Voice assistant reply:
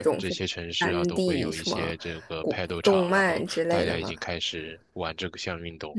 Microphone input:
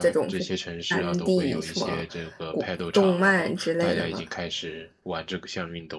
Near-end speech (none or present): none